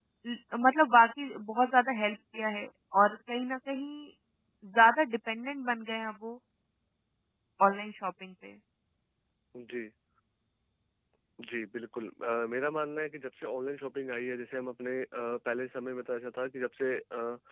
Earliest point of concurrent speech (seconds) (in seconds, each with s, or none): none